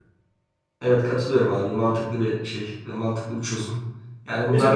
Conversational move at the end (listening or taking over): taking over